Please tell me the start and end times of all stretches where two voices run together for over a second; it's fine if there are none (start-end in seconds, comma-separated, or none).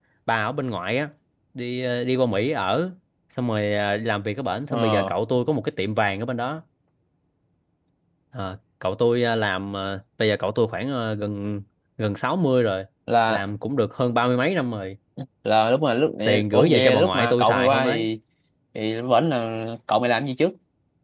16.5-18.0